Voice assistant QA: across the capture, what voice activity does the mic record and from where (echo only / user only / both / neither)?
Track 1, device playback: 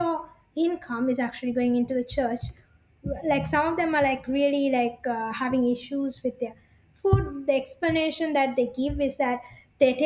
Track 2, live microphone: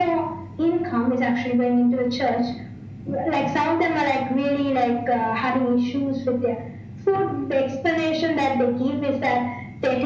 echo only